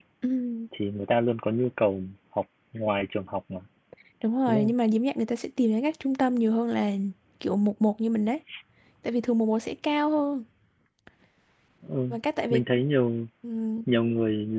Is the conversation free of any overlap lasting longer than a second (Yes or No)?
Yes